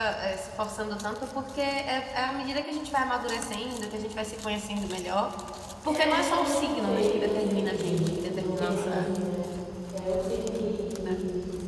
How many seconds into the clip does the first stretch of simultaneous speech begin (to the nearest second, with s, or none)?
6 s